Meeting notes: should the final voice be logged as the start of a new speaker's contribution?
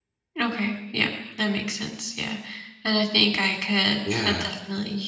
No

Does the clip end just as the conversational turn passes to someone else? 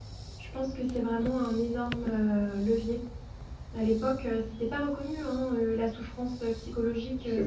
No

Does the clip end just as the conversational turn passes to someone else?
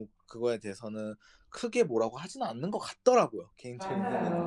Yes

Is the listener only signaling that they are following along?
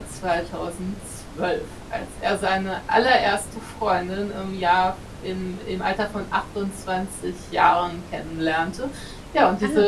Yes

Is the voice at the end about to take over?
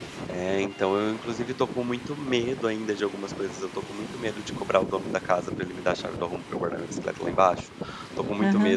No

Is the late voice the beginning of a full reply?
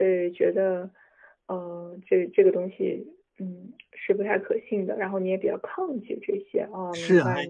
Yes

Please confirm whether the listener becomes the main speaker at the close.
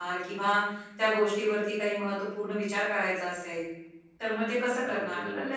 No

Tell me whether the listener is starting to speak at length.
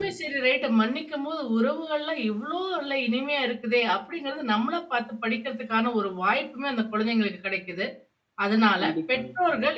No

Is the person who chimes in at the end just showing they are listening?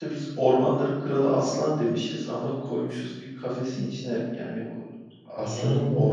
Yes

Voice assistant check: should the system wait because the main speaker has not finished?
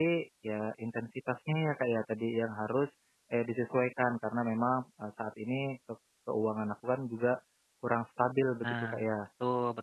No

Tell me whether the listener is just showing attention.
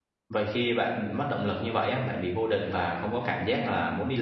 Yes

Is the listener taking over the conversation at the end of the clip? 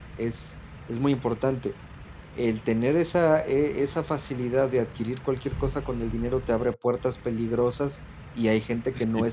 No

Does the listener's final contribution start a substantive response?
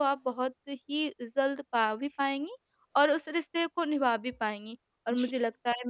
No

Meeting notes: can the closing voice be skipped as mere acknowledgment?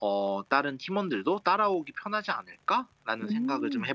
No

